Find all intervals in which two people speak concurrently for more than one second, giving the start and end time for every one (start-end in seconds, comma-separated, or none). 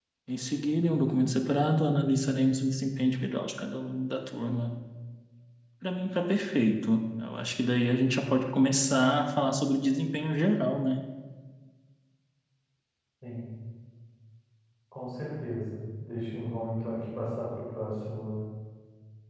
none